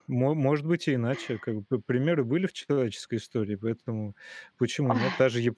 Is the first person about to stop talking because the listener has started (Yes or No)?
No